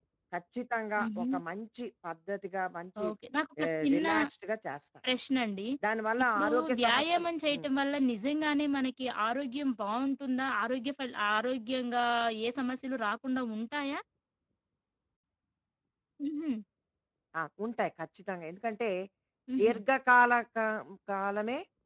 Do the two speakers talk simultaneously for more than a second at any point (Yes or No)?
Yes